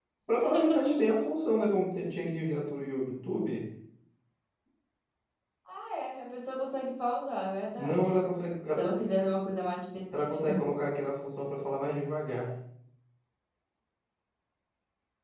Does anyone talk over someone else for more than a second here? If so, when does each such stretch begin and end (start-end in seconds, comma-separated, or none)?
none